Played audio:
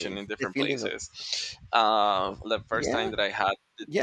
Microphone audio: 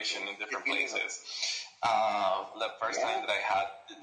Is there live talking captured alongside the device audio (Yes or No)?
No